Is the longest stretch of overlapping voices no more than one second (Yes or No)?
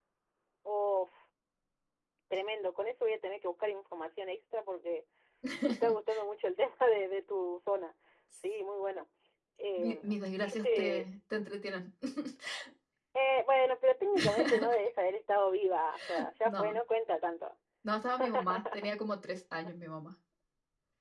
No